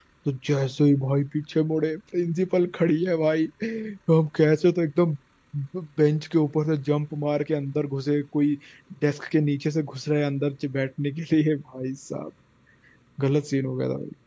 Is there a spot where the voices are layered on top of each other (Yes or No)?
No